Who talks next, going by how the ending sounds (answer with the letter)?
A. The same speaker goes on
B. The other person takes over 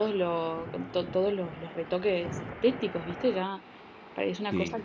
A